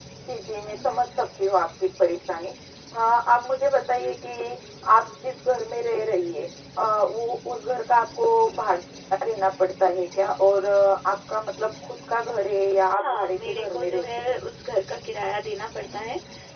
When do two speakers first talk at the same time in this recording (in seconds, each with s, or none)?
13.0 s